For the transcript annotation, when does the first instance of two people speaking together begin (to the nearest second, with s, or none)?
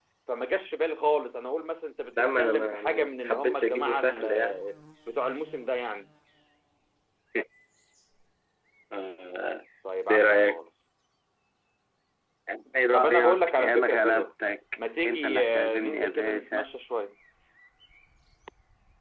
2 s